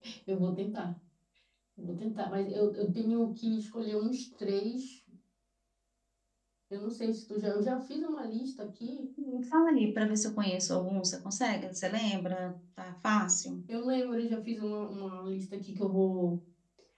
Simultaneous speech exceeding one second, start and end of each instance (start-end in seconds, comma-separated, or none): none